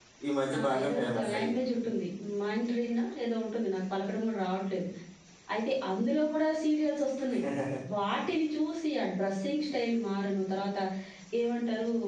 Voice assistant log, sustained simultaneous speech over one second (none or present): present